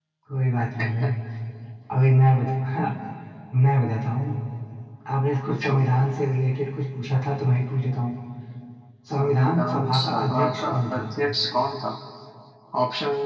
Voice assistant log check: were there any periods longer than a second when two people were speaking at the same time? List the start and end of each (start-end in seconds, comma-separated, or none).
9.2-11.0